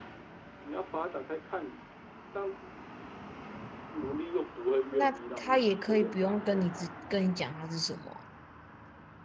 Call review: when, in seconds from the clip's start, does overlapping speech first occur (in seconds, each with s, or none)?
4.9 s